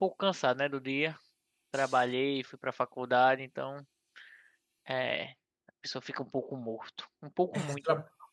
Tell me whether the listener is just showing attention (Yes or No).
No